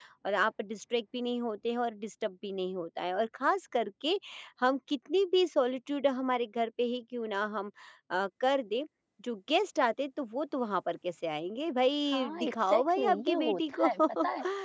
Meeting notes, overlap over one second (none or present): present